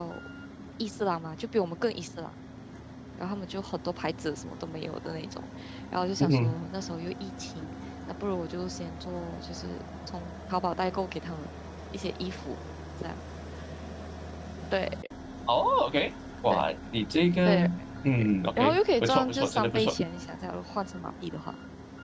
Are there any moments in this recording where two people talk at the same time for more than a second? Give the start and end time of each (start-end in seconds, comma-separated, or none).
18.6-20.0